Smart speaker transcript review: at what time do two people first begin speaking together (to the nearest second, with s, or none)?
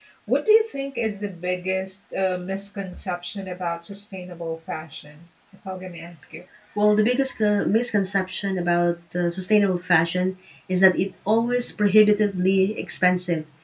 none